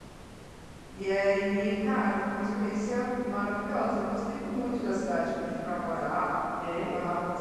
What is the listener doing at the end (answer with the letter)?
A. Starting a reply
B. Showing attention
B